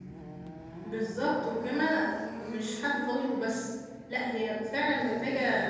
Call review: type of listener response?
listening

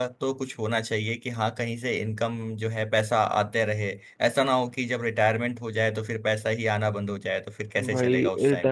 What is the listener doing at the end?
taking over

